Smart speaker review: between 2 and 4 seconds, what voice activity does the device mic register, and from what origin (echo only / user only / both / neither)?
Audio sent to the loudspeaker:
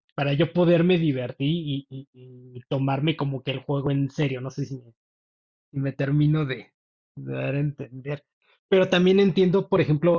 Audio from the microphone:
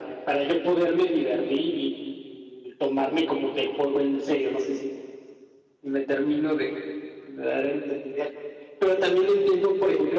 echo only